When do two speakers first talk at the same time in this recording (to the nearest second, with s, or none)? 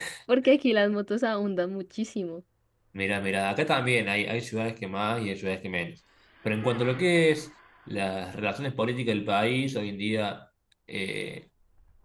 none